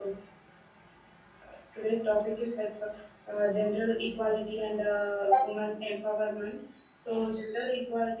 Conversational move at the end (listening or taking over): listening